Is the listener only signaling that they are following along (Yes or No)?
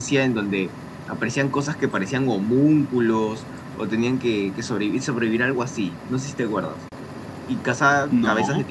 Yes